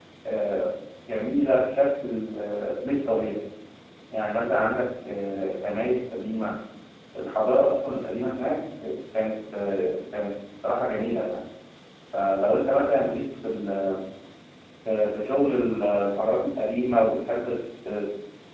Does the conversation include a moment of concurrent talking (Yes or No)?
No